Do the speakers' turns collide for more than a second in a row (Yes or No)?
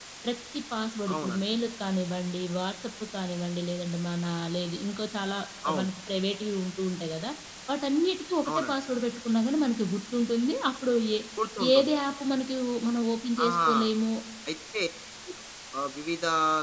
No